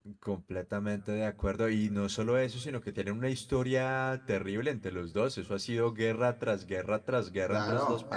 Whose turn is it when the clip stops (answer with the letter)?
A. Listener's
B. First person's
A